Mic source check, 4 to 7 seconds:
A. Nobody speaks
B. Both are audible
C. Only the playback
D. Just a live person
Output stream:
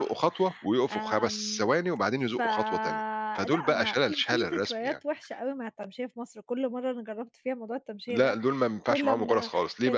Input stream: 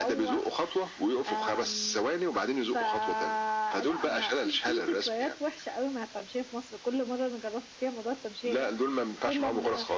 C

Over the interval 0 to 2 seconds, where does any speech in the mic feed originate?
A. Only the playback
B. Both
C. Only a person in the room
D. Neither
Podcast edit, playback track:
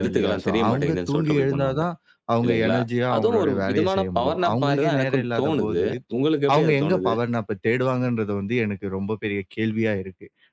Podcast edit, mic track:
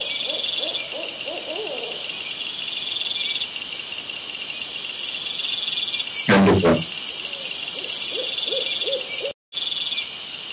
D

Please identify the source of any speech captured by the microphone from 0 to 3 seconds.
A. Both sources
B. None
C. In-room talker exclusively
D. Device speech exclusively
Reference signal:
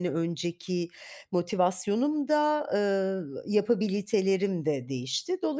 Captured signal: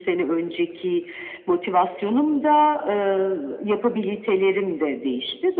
D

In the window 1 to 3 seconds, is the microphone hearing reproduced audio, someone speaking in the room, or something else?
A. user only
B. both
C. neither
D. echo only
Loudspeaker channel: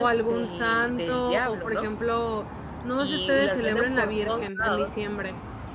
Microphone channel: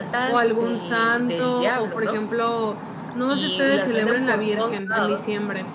D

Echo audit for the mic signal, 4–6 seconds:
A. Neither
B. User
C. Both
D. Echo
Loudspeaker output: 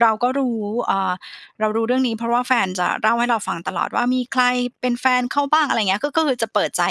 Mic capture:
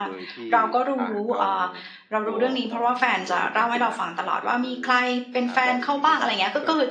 C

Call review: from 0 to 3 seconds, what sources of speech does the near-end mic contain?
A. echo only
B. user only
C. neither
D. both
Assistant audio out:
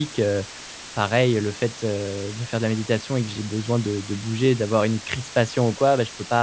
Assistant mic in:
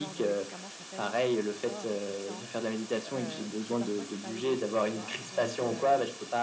D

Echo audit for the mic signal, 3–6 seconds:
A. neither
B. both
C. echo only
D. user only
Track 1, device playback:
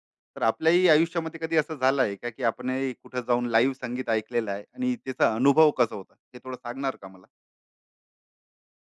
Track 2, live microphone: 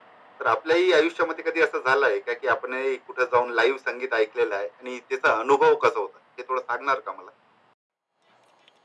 C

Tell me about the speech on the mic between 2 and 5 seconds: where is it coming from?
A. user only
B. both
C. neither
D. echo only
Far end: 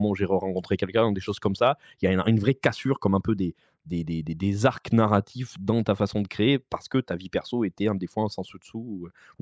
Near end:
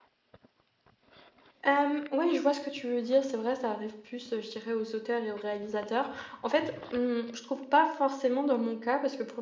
A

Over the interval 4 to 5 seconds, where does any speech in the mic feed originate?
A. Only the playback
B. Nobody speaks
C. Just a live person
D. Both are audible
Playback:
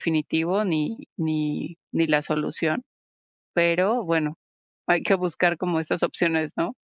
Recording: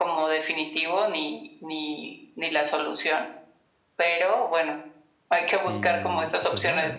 A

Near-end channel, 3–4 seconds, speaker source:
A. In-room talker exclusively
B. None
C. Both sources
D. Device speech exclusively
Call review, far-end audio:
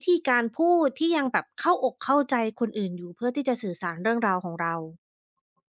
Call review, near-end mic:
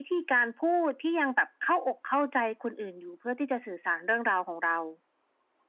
D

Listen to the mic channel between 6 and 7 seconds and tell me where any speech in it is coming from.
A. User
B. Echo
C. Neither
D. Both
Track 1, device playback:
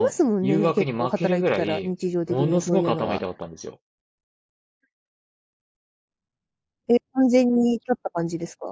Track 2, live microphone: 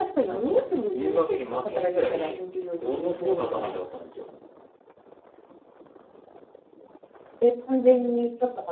C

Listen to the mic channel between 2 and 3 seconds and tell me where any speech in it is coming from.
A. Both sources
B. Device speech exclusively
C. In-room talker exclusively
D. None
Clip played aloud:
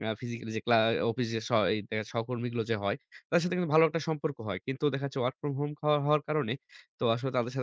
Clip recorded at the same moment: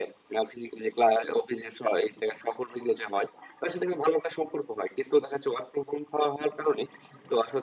B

